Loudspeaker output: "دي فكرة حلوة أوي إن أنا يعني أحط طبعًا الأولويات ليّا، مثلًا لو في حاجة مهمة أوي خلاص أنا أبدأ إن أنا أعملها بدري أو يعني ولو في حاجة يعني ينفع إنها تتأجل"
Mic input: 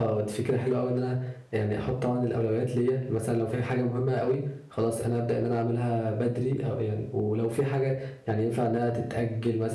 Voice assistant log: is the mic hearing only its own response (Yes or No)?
Yes